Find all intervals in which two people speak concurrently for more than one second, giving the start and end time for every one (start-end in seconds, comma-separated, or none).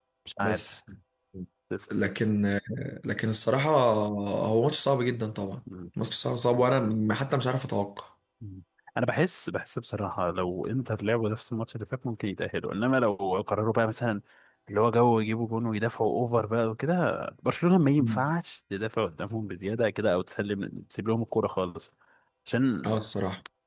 none